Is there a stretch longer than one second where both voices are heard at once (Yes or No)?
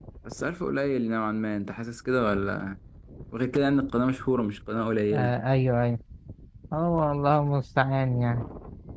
No